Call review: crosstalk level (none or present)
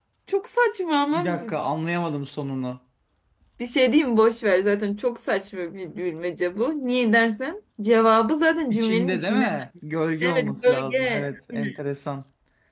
present